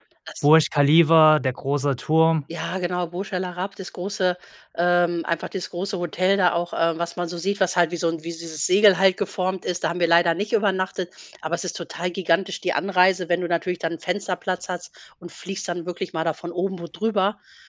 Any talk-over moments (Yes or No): No